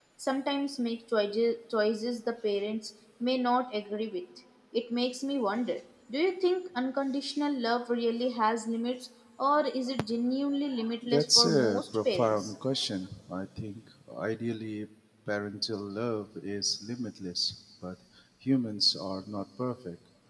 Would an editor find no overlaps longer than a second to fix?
No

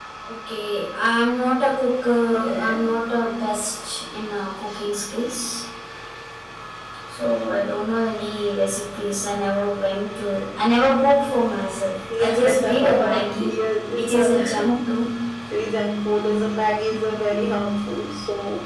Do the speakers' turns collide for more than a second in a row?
Yes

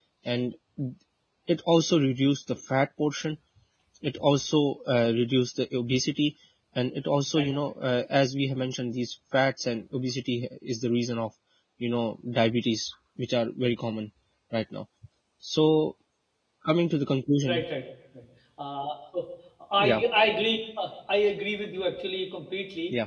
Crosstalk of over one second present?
No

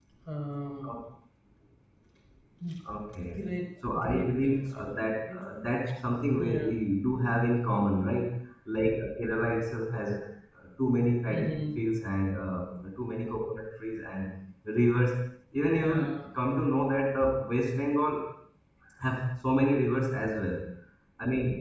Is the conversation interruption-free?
No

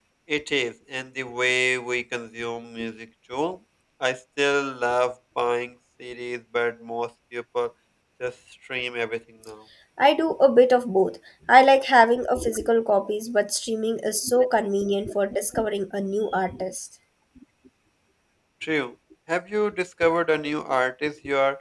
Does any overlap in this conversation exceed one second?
No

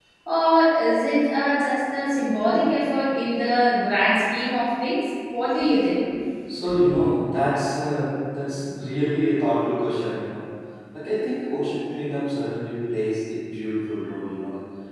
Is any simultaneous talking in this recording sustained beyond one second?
No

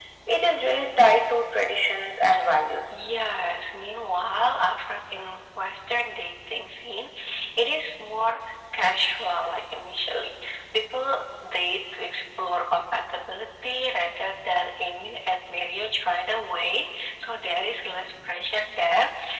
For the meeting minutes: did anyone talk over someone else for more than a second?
No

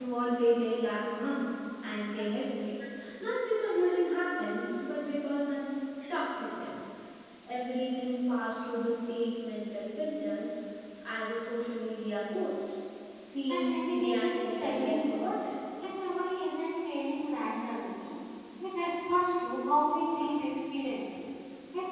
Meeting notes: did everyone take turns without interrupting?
No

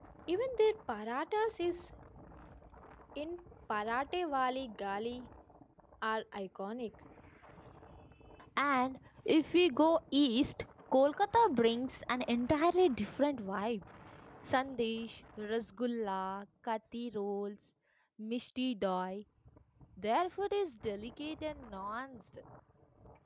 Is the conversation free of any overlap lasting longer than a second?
Yes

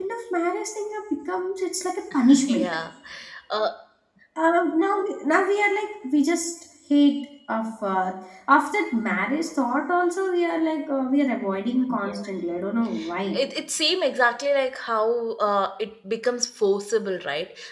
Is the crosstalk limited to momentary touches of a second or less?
Yes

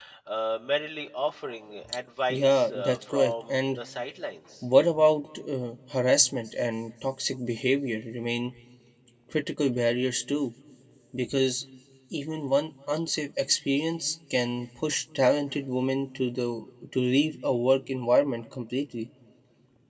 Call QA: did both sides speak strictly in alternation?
No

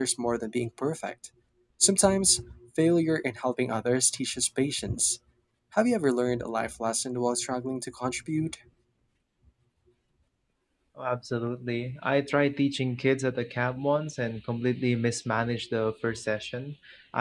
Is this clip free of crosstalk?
Yes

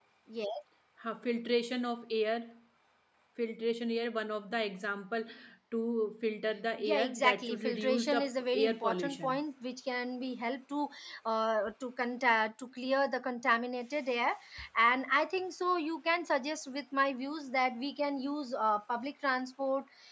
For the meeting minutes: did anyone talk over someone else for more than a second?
Yes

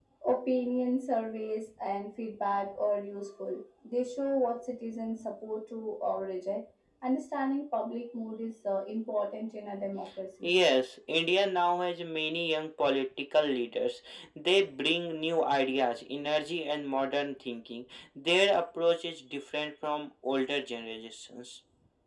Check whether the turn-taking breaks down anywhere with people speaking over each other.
No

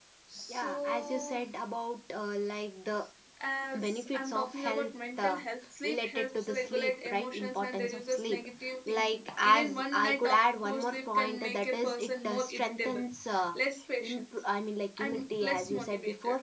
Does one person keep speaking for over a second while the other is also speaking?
Yes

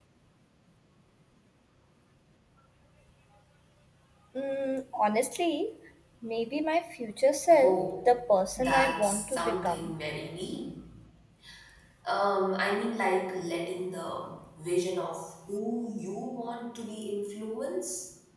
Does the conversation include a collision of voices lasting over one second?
Yes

